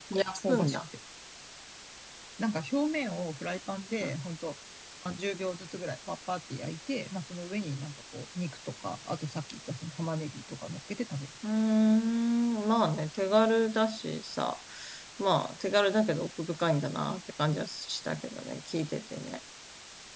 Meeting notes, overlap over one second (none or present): none